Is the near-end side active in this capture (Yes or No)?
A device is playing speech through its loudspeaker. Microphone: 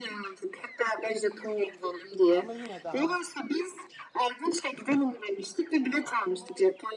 Yes